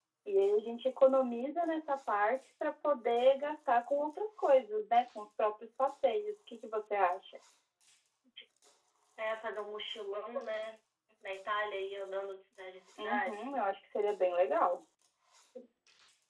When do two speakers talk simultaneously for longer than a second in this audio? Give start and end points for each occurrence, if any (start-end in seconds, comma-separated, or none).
none